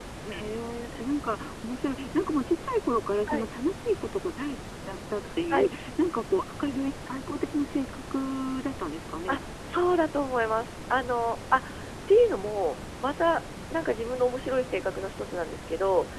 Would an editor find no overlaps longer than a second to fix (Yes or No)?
Yes